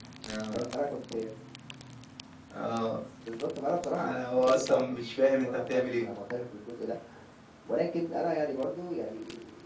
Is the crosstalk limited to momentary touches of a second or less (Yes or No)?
No